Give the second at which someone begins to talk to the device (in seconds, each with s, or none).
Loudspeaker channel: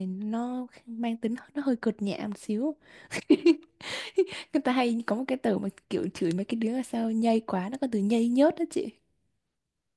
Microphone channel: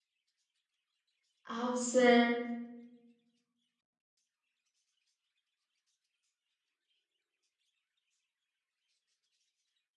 1.6 s